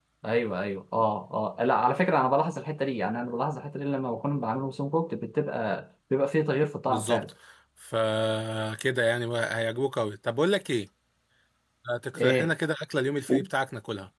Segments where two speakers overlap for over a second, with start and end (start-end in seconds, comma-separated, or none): none